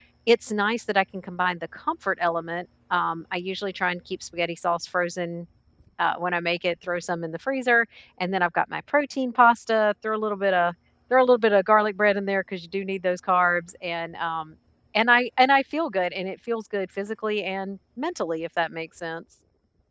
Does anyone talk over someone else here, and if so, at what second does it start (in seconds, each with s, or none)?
none